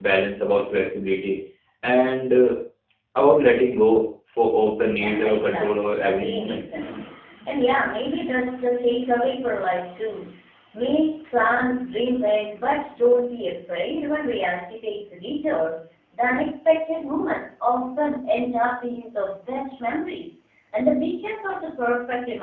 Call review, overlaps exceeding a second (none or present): present